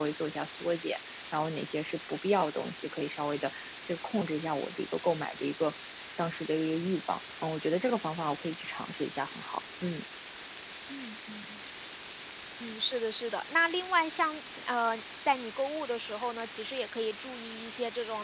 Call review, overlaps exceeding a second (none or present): none